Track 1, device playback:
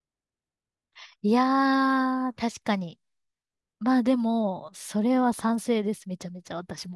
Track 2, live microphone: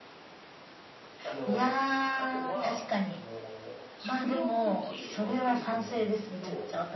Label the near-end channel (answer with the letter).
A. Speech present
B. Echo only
A